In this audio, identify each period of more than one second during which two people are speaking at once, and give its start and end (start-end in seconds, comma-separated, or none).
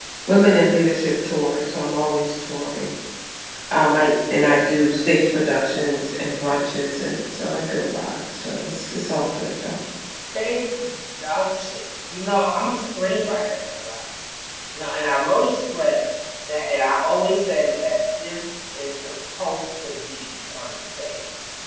none